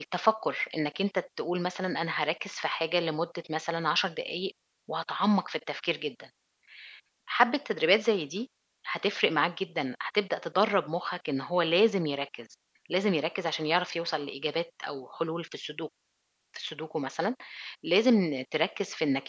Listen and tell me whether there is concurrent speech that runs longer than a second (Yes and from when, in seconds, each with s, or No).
No